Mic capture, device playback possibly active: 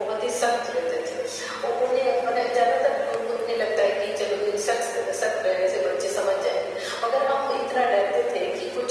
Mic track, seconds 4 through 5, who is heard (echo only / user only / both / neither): echo only